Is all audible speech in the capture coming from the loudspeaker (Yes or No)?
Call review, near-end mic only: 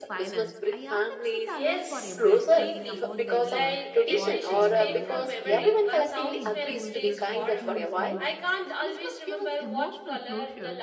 No